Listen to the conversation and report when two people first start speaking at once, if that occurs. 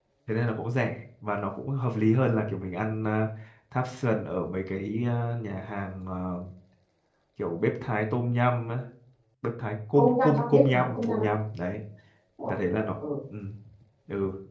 10.0 s

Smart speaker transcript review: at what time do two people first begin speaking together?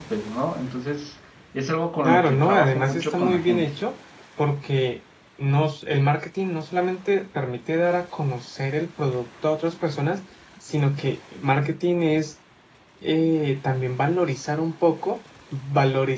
2.0 s

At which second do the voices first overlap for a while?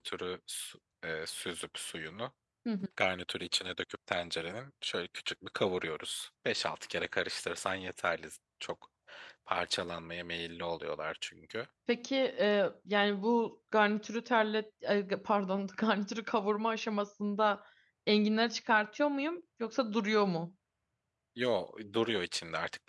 none

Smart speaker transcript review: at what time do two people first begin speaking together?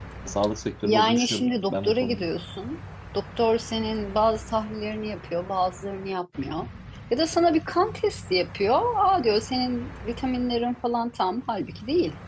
0.8 s

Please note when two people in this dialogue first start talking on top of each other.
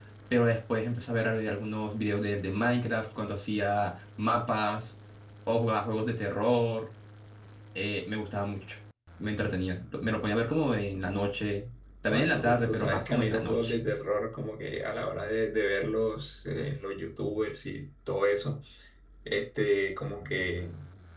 12.1 s

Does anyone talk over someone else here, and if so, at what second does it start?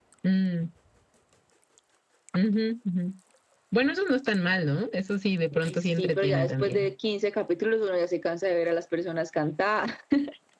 5.6 s

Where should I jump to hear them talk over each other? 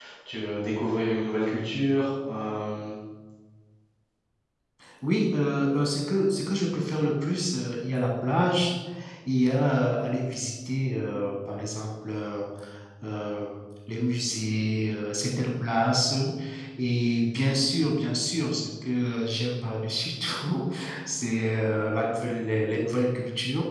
none

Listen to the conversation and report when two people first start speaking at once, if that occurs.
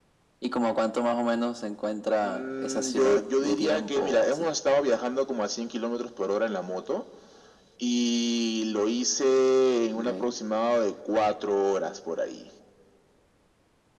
2.2 s

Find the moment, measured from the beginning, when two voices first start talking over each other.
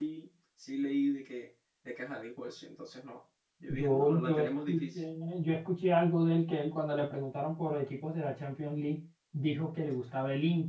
3.7 s

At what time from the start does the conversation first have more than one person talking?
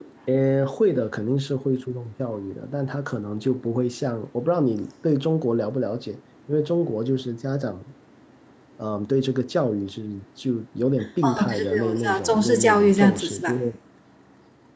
11.2 s

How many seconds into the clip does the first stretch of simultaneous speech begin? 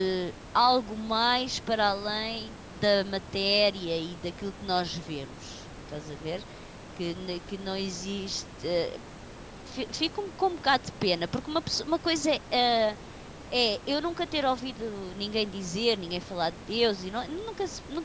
none

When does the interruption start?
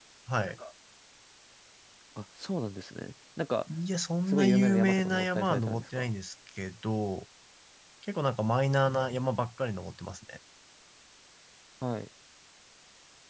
4.3 s

